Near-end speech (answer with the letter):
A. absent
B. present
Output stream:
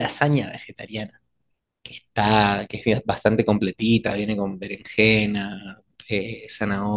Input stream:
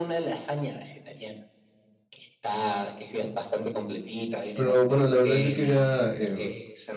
B